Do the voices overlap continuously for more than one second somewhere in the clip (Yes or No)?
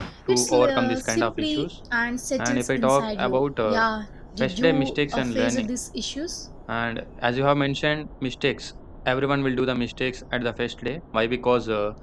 Yes